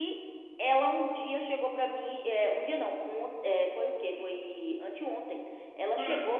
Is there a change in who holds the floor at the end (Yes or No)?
No